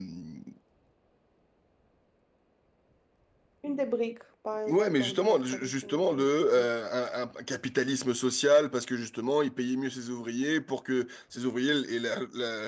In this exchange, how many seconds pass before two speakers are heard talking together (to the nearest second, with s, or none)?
5 s